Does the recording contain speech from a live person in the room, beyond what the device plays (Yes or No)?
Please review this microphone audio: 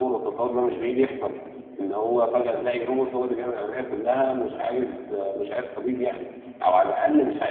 Yes